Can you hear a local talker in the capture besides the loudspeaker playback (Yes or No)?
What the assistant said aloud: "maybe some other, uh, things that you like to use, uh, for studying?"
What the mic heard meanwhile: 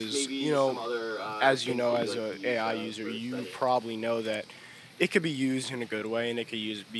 Yes